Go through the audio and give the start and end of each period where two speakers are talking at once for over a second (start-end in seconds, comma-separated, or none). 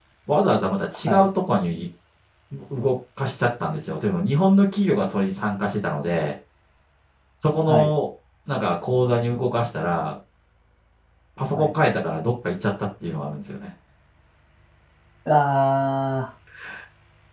none